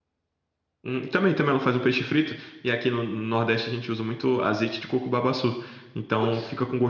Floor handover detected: No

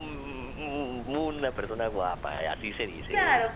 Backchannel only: No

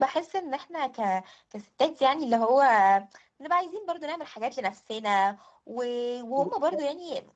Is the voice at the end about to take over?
No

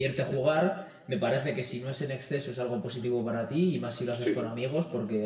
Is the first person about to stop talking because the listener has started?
No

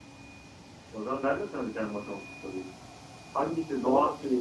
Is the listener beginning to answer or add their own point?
No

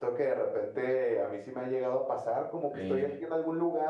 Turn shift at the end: No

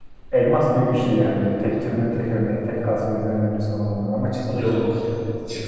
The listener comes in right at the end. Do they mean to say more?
Yes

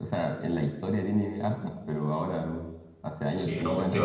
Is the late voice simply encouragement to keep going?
No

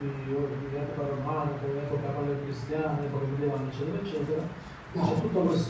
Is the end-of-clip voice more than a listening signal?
No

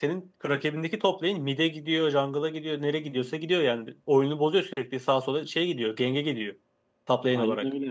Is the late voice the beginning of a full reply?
Yes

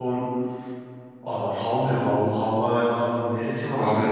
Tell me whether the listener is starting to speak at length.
No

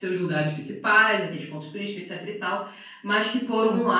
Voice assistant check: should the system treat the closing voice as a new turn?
No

